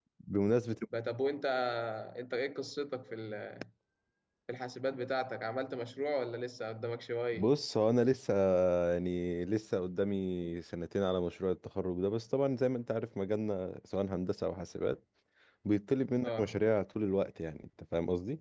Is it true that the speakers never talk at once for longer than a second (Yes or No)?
Yes